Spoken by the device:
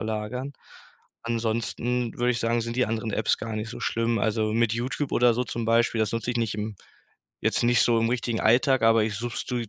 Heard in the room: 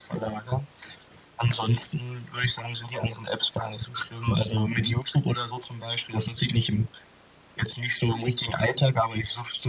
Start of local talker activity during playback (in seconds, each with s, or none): 4.6 s